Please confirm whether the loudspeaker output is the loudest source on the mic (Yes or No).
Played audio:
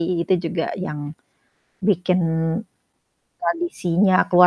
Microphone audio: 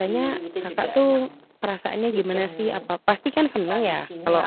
No